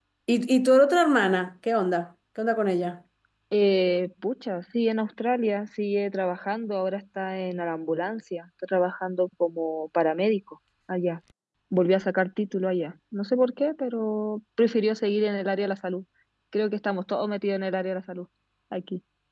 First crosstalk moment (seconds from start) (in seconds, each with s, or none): none